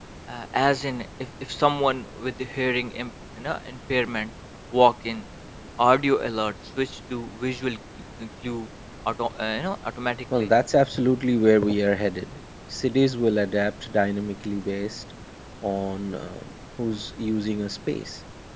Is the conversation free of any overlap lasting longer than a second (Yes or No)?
Yes